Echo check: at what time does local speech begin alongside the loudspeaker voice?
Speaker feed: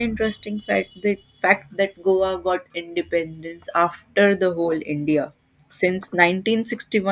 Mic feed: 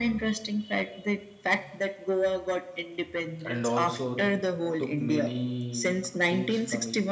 3.5 s

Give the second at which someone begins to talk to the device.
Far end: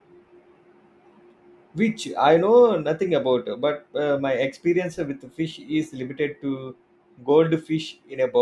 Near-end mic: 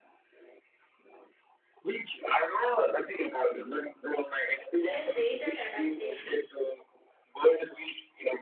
4.8 s

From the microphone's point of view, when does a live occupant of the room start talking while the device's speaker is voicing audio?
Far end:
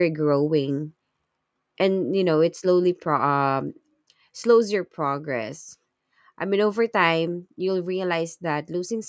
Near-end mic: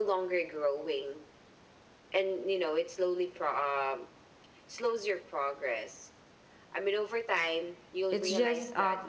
8.1 s

